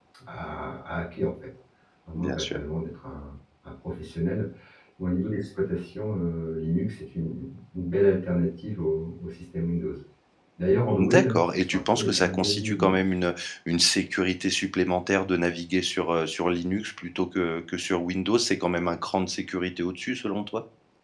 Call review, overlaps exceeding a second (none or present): present